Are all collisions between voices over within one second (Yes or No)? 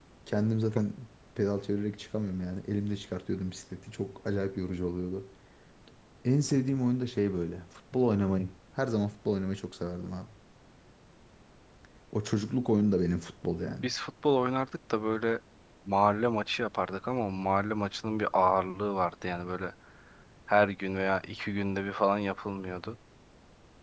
Yes